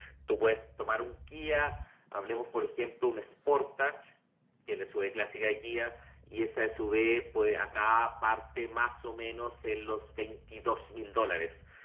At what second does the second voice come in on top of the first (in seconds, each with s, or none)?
none